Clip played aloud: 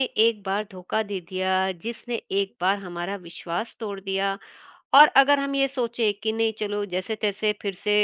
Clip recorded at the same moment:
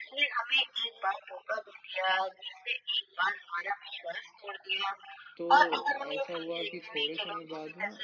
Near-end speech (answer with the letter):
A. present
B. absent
A